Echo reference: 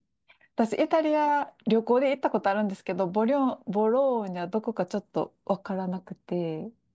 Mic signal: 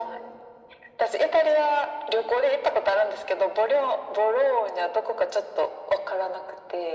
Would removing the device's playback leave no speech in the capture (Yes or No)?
Yes